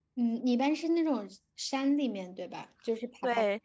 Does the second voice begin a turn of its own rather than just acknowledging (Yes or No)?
Yes